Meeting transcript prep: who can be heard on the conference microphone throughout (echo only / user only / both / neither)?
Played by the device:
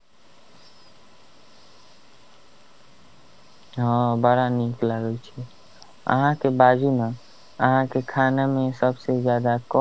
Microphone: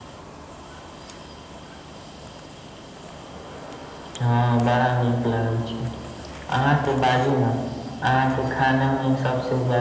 echo only